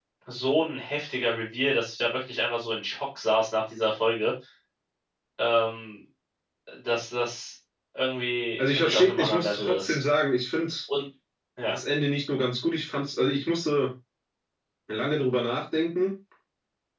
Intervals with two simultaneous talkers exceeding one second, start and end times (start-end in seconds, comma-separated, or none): 8.6-10.0